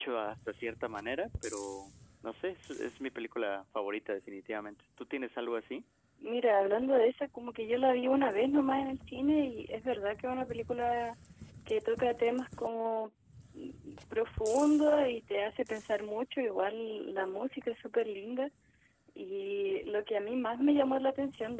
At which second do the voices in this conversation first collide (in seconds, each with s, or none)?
none